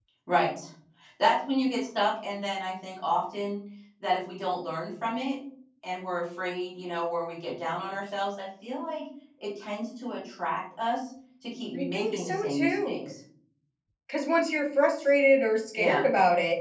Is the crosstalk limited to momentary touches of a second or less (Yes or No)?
No